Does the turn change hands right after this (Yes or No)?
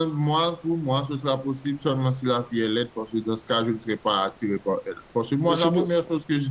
No